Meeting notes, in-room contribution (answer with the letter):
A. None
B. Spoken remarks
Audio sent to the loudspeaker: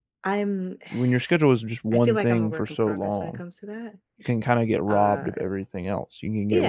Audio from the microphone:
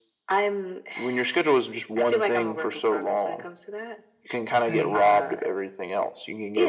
B